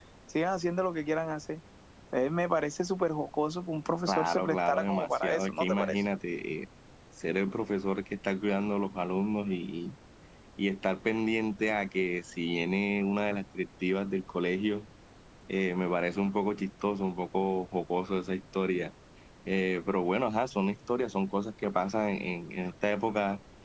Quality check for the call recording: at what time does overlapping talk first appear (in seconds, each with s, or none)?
4.1 s